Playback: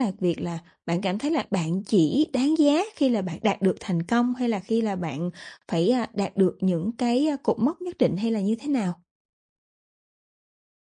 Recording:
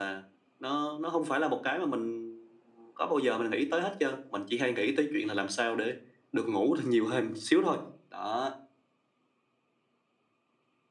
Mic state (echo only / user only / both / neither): user only